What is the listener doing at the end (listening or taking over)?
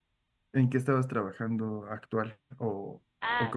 taking over